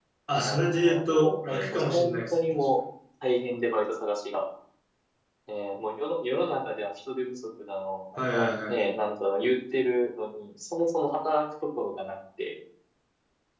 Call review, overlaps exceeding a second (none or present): present